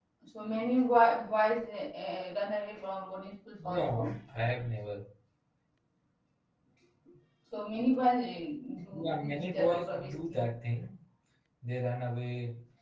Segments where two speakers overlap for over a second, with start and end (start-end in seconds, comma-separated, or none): 9.0-10.5